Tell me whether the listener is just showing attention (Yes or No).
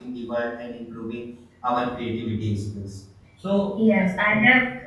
No